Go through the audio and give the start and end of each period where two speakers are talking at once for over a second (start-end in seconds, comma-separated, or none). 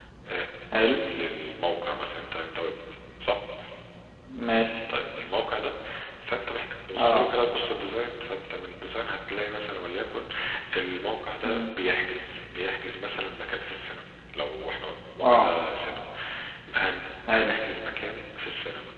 none